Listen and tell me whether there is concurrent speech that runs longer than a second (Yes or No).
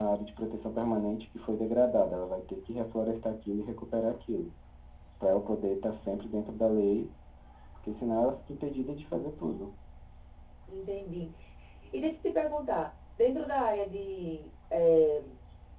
No